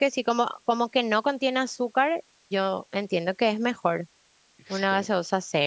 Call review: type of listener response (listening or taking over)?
listening